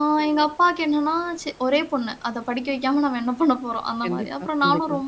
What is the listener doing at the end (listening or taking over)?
listening